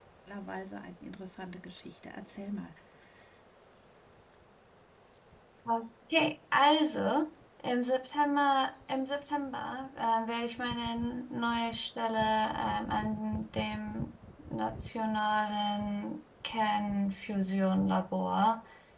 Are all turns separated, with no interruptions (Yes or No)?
Yes